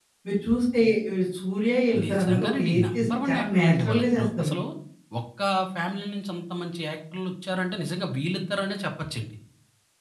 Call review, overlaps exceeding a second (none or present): present